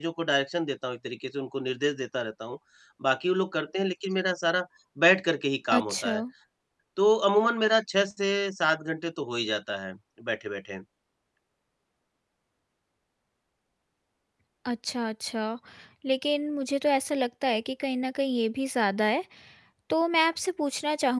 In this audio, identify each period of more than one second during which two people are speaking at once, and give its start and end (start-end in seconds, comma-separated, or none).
none